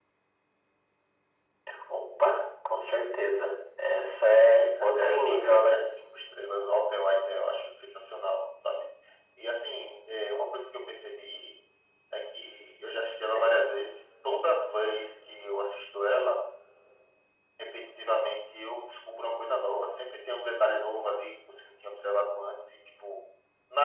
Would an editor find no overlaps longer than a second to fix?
No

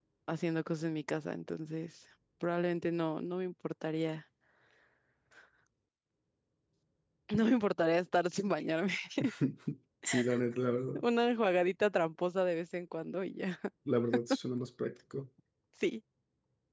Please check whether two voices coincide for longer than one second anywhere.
No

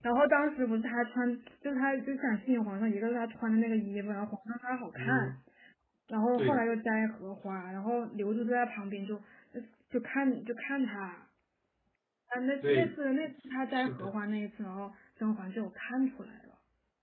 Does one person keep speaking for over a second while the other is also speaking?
No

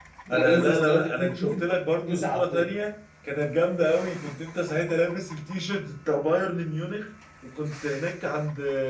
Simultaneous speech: Yes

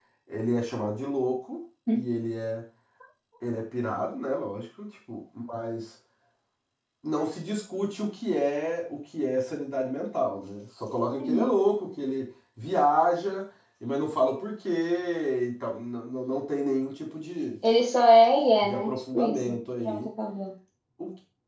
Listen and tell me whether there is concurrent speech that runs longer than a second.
Yes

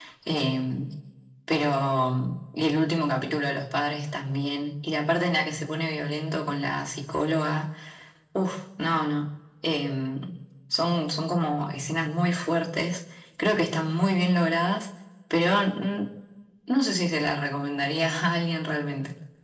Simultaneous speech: No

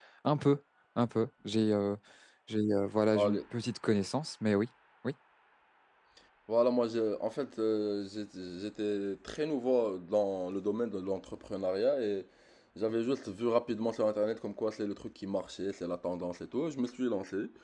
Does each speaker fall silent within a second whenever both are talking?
Yes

